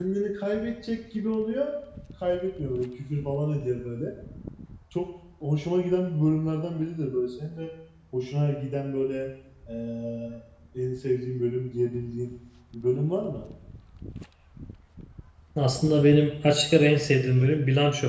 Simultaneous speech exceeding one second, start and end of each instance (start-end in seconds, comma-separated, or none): none